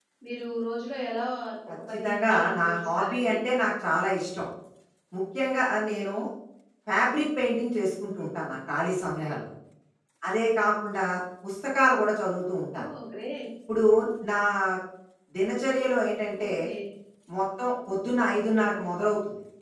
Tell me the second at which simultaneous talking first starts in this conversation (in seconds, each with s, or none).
1.9 s